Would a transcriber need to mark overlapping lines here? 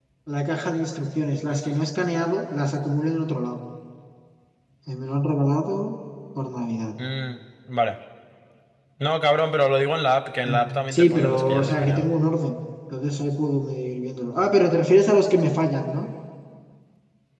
Yes, from 10.4 s

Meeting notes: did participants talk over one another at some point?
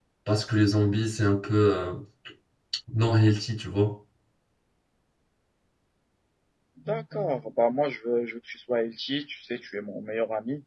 No

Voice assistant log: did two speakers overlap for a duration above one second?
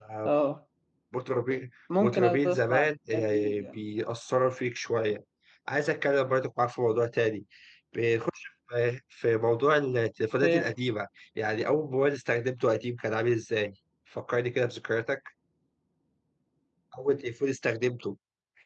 Yes, from 2.0 s

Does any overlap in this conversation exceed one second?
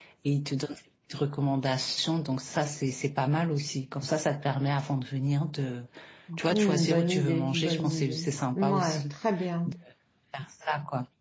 Yes, from 6.5 s

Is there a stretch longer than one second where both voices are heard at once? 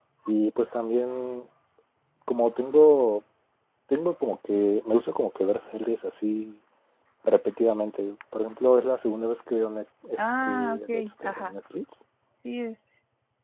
Yes, from 10.2 s

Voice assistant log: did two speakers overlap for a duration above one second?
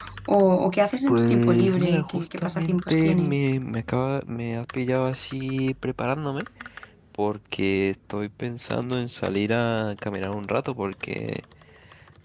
Yes, from 1.1 s

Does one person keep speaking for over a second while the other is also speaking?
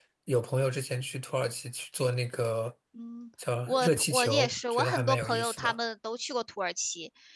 Yes, from 3.7 s

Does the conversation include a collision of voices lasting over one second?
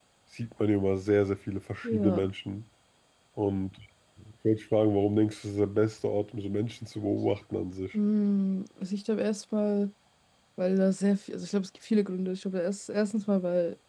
No

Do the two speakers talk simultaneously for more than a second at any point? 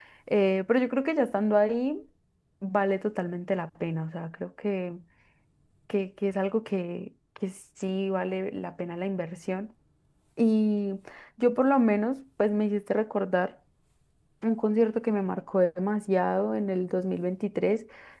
No

